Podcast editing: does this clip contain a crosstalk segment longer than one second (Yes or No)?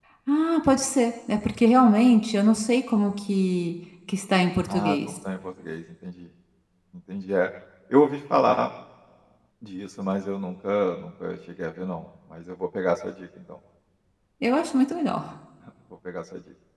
No